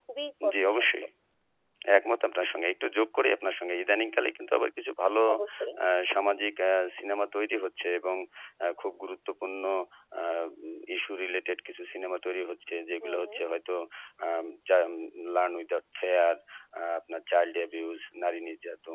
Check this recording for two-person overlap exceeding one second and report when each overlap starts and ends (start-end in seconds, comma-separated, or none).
none